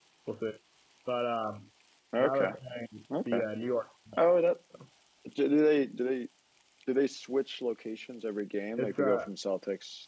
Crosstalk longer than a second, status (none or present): none